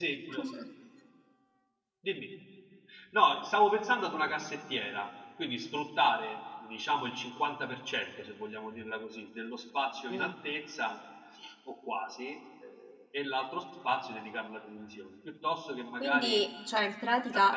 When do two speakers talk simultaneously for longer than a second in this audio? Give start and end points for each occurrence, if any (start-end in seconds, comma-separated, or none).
none